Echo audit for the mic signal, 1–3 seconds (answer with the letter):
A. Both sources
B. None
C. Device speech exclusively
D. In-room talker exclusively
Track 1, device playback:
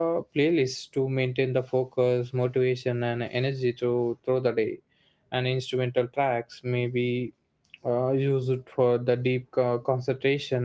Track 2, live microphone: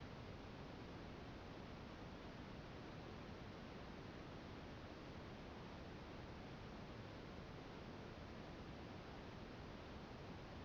B